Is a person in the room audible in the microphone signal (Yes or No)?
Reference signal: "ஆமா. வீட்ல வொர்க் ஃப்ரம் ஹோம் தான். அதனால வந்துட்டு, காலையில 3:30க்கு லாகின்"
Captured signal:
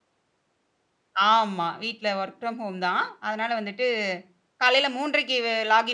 No